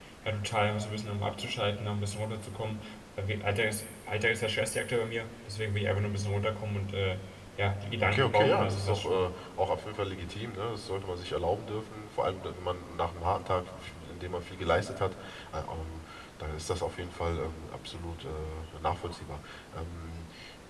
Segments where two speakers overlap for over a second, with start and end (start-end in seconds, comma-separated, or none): 8.0-9.3